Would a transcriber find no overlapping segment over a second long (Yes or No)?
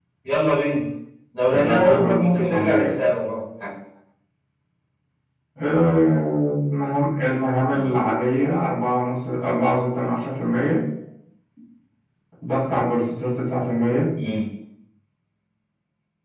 No